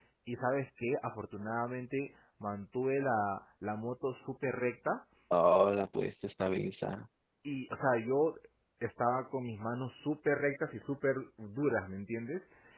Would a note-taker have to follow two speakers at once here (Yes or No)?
No